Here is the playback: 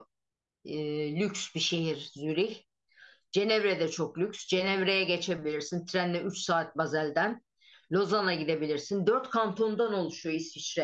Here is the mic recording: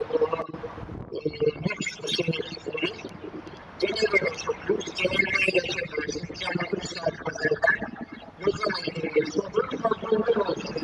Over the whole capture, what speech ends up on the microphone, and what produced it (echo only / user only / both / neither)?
echo only